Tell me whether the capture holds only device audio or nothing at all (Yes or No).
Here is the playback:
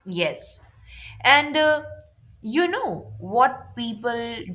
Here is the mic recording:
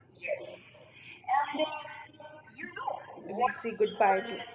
No